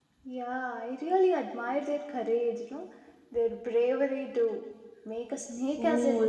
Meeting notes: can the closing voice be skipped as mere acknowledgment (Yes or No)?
No